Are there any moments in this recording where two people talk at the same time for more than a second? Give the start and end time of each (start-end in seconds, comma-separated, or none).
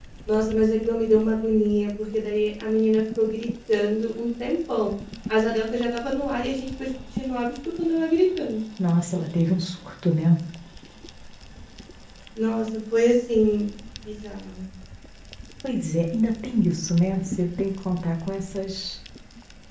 none